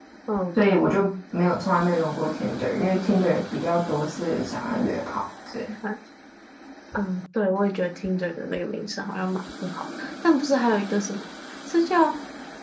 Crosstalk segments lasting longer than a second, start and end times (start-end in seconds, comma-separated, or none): none